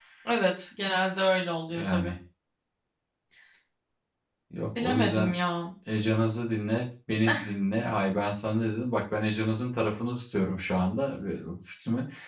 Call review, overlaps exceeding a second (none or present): none